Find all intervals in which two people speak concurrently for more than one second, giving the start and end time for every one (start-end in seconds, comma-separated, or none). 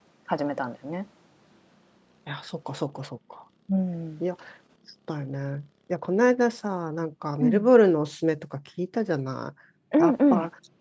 none